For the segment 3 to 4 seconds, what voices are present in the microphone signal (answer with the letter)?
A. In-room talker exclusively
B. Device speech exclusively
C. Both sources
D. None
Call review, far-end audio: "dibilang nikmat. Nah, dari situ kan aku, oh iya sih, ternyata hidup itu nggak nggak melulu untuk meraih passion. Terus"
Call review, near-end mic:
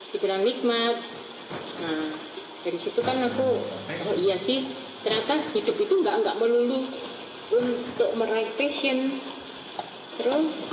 C